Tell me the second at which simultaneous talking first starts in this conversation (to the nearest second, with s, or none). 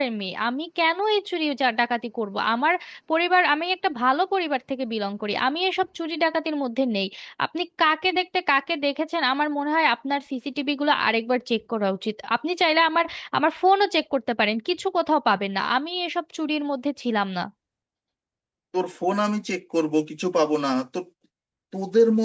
none